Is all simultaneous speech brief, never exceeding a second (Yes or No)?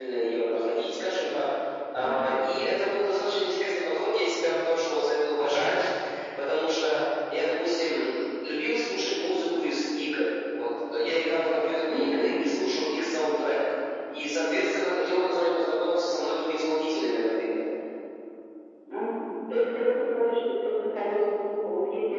Yes